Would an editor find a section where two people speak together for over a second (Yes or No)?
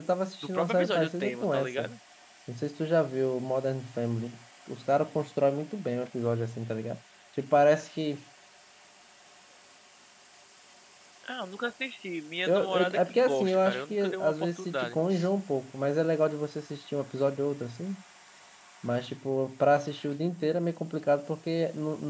Yes